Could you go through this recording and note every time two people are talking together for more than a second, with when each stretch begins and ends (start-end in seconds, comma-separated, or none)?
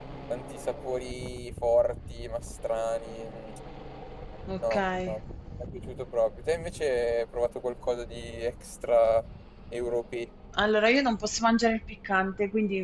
none